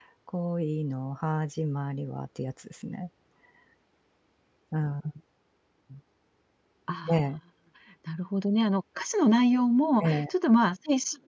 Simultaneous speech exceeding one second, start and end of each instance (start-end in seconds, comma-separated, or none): none